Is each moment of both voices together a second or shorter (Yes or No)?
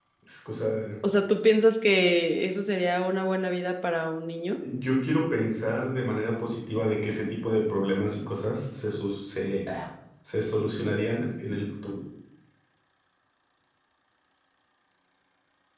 Yes